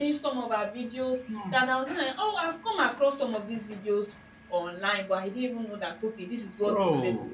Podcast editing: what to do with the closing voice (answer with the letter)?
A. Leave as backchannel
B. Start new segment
B